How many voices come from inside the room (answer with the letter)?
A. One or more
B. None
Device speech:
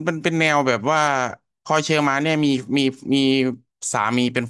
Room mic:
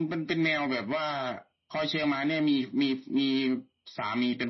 B